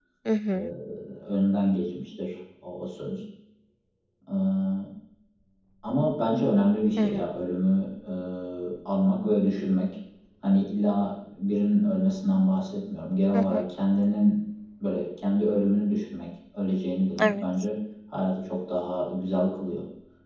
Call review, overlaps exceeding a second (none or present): none